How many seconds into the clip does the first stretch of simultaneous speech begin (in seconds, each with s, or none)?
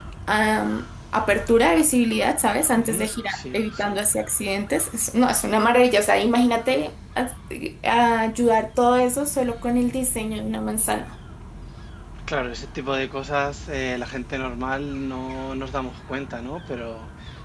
2.8 s